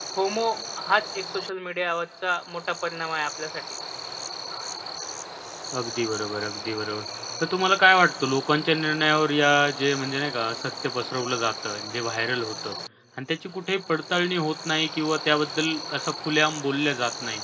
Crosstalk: none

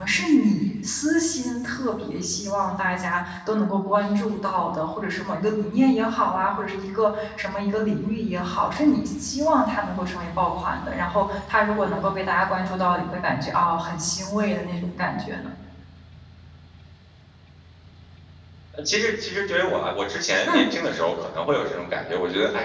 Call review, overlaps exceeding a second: none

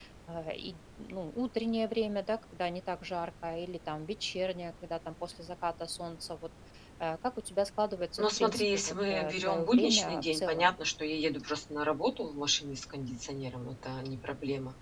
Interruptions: present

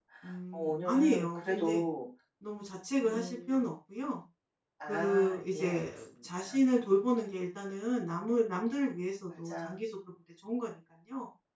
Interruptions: present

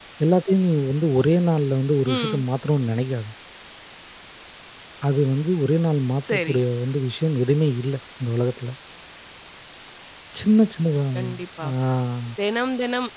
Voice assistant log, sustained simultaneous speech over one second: none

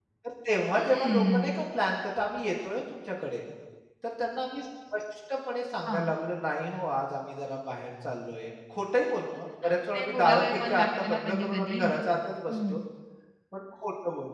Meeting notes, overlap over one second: present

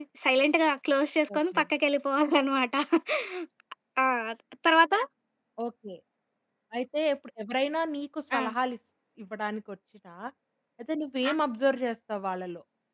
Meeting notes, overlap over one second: none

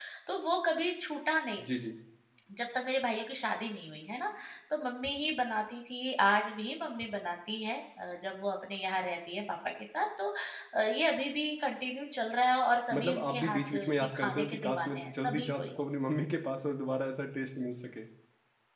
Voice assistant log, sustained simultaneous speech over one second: present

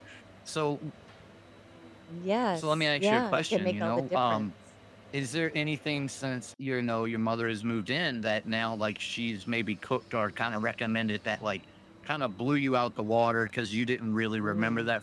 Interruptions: present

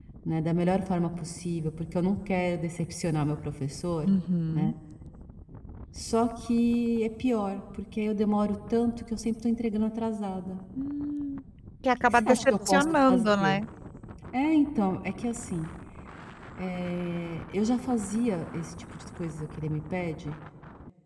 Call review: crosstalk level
present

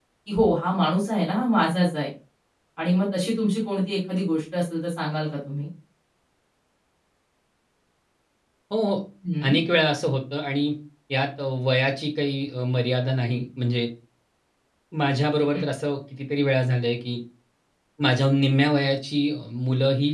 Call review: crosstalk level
none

